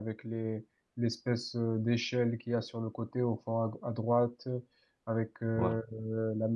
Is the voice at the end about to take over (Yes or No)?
No